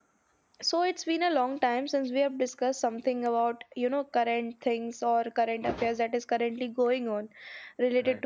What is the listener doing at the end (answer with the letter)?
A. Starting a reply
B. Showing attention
B